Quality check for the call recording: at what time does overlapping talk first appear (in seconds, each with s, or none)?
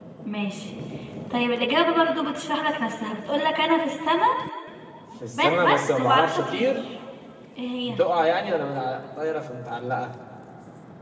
5.3 s